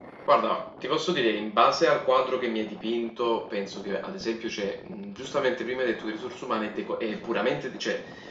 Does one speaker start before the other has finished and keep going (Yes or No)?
No